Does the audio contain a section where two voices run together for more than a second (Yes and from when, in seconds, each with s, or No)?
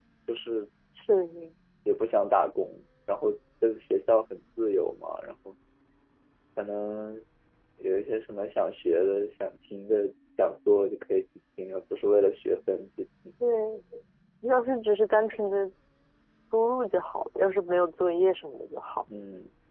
No